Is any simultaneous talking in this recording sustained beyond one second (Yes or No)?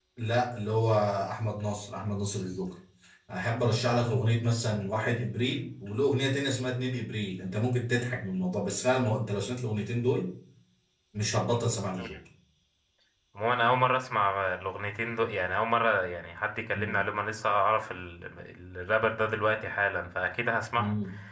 No